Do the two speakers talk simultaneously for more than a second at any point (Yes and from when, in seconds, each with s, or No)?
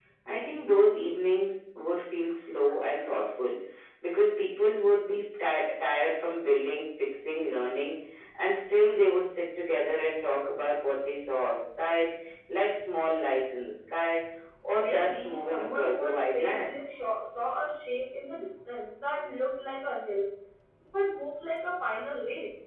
Yes, from 14.7 s